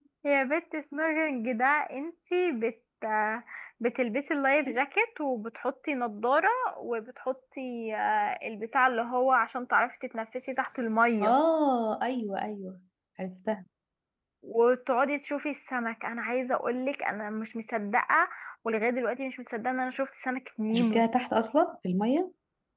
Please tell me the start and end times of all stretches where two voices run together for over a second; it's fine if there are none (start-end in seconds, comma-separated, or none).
none